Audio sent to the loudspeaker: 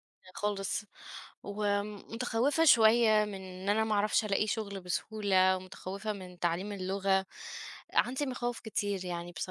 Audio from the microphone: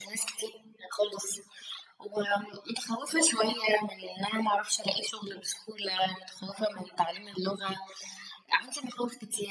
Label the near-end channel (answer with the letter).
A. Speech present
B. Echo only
B